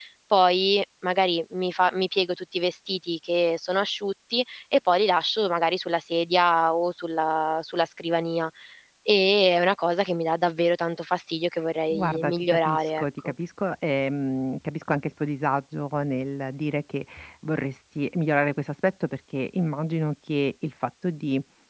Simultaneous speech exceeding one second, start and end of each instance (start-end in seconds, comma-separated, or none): 11.9-13.3